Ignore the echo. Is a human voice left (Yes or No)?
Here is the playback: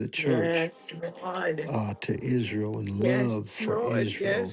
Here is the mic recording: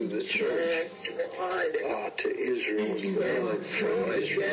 Yes